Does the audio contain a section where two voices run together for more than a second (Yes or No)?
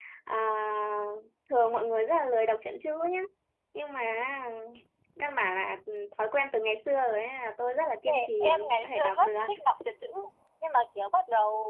Yes